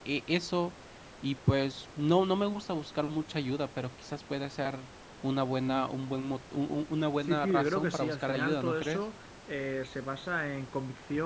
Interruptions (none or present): present